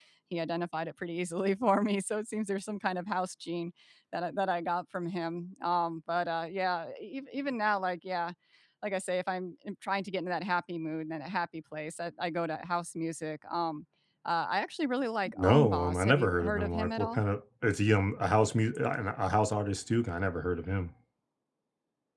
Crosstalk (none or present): present